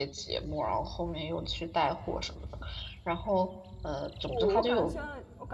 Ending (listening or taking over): taking over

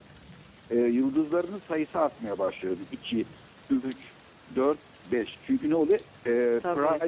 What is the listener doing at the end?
listening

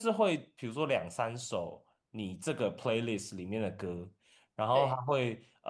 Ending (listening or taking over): listening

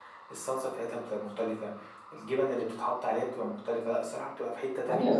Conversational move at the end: taking over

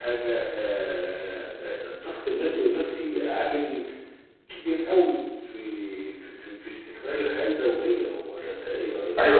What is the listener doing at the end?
taking over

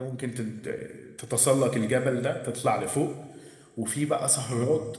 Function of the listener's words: listening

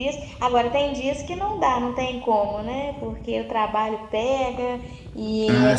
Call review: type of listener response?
listening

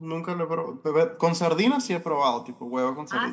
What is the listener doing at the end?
taking over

